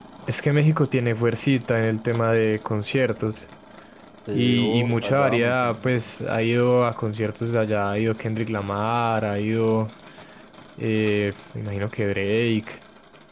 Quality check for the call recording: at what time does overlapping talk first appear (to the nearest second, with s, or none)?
4 s